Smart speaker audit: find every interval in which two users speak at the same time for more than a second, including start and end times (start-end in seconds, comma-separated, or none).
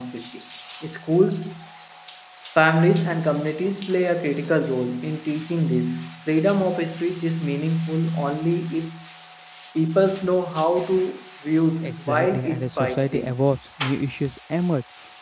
11.8-13.4